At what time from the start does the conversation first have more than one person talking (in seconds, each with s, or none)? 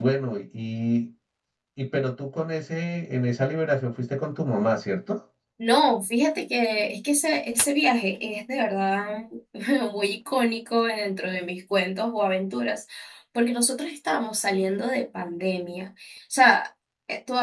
none